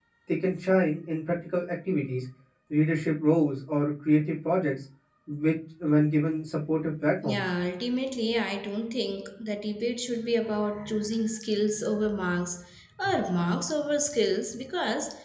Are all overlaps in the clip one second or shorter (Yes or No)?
Yes